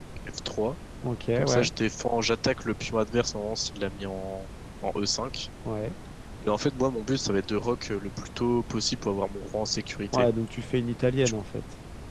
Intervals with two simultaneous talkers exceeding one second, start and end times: none

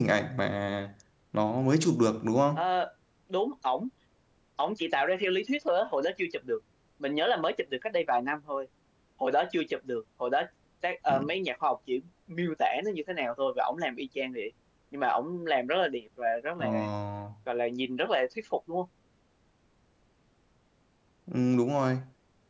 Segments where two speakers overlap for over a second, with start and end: none

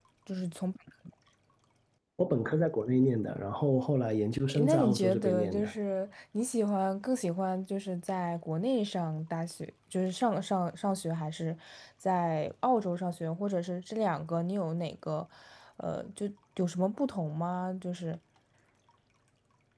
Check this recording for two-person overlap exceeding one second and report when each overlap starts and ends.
4.5-5.7

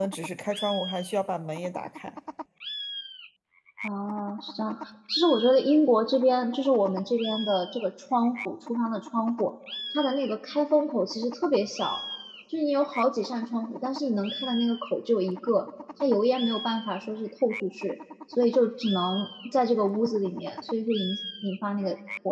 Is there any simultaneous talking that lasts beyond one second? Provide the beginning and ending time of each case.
none

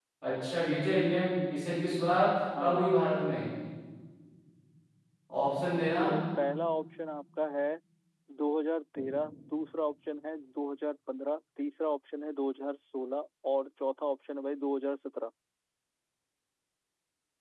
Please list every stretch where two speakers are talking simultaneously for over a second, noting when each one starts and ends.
none

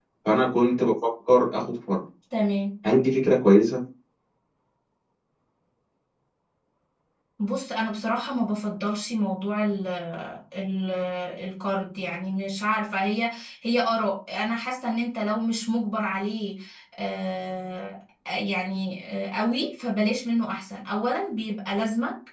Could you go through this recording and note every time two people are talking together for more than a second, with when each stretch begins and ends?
none

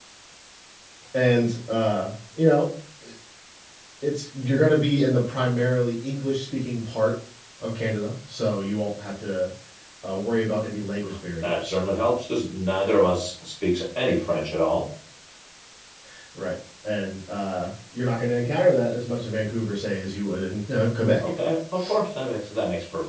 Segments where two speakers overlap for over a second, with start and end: none

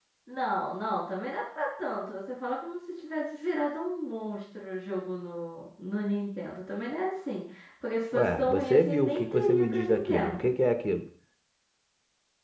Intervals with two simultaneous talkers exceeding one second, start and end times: 8.1-10.5

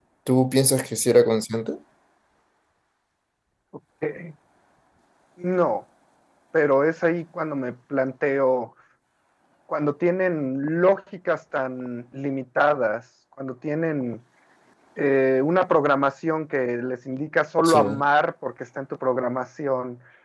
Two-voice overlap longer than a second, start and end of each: none

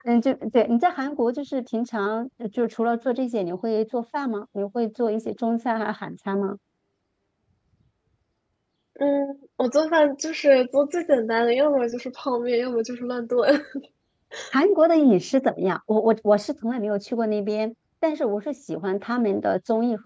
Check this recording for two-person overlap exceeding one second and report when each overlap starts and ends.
none

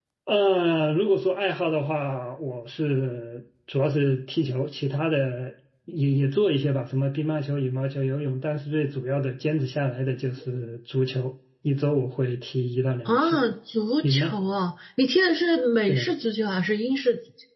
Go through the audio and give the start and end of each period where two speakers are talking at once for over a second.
none

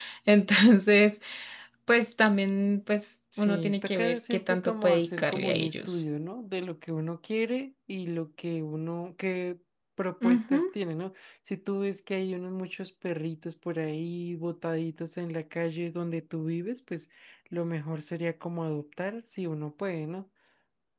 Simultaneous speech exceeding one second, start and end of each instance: 3.4-6.0

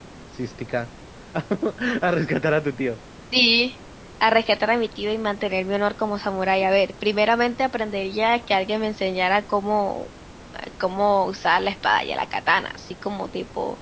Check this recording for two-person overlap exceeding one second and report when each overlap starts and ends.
none

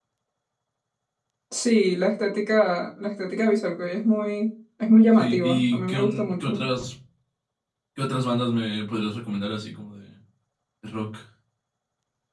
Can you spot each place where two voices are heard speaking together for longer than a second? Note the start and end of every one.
5.2-6.6

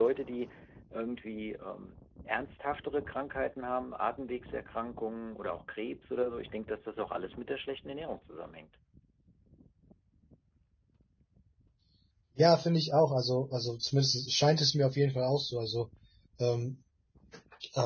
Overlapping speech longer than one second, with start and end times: none

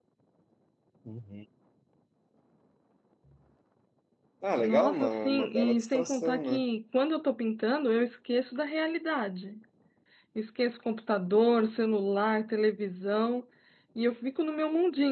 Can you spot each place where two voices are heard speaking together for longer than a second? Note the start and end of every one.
4.6-6.6

